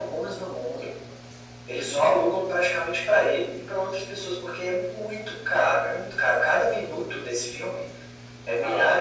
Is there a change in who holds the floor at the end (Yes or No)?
No